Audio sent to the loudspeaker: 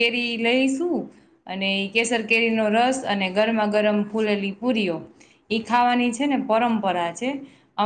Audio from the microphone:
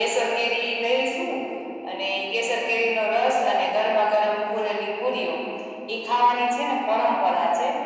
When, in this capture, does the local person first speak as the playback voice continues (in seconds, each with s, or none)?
none